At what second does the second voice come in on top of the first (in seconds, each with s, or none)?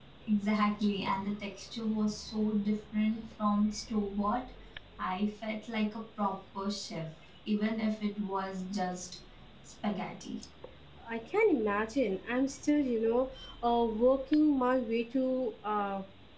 none